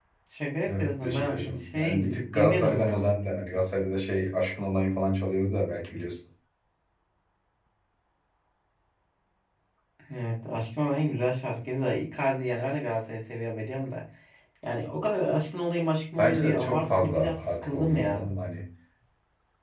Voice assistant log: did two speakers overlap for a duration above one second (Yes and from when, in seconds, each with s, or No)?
Yes, from 0.7 s